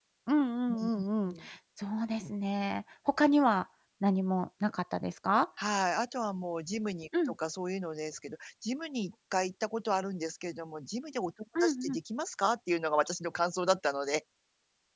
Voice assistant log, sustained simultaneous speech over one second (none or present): none